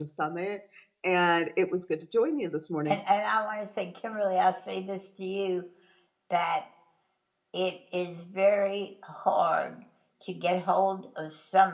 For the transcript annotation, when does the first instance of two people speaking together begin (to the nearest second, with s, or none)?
none